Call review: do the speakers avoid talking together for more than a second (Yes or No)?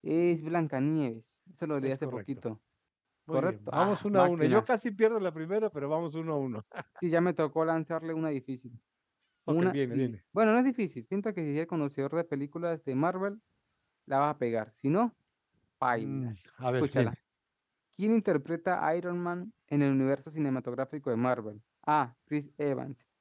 No